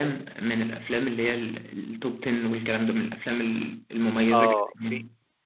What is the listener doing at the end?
taking over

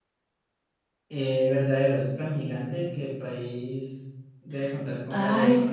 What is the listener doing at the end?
taking over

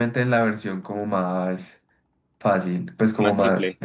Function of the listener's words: listening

